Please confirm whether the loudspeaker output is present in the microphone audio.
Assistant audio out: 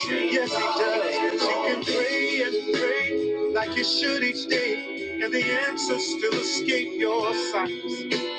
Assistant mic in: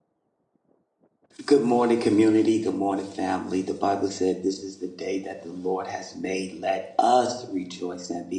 No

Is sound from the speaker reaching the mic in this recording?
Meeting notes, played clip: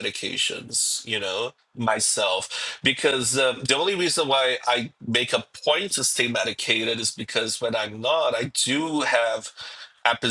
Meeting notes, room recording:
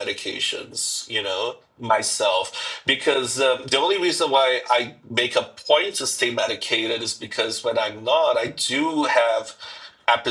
Yes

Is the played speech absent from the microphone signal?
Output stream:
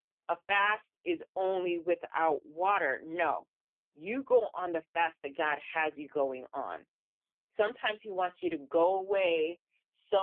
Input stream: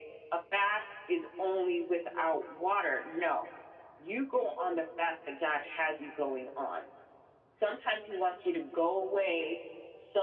No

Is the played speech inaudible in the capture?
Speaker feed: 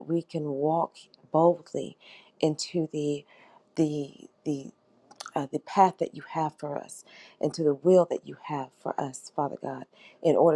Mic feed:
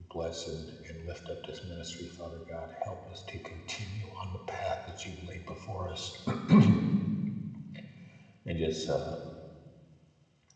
Yes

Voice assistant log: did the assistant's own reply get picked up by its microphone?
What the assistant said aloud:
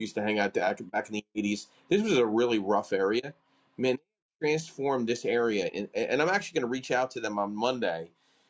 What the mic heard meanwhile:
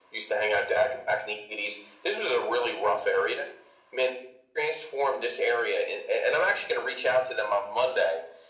Yes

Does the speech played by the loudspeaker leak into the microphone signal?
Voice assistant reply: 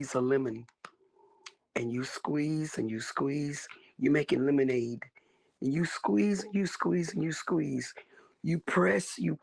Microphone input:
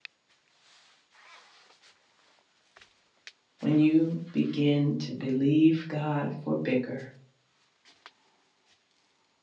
No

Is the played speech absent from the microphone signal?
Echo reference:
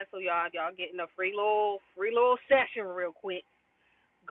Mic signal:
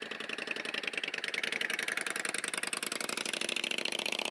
Yes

